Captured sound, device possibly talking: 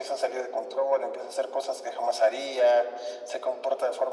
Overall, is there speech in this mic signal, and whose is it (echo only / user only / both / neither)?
echo only